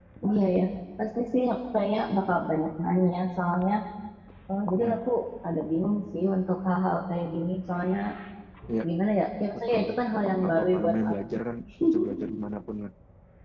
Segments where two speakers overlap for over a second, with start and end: 9.5-10.9

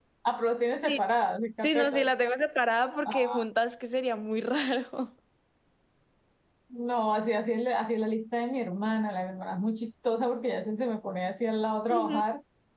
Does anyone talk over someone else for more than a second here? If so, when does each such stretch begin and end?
none

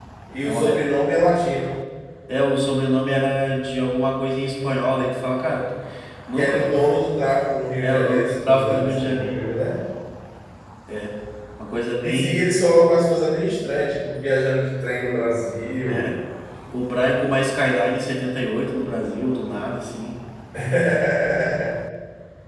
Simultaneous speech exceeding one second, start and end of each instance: 7.8-9.4

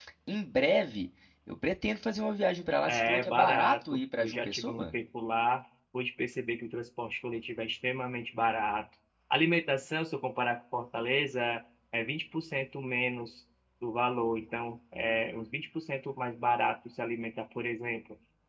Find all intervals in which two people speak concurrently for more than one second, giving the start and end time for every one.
2.8-4.9

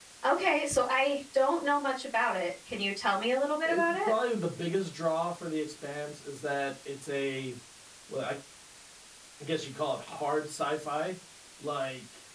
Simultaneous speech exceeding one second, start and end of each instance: none

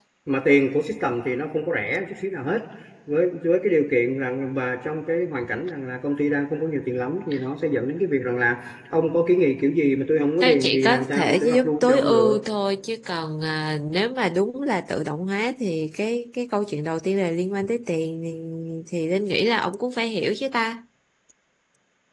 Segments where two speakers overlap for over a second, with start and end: 10.4-12.3

